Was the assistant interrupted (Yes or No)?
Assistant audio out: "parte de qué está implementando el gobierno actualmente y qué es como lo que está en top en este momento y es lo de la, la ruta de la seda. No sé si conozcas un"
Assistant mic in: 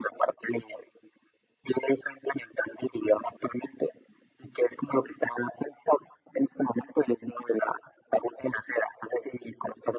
No